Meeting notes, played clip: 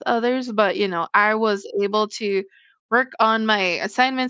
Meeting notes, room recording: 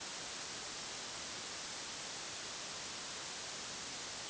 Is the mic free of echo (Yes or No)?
Yes